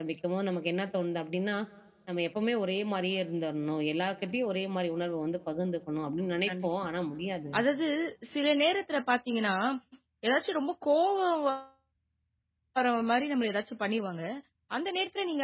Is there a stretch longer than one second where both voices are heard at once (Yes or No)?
No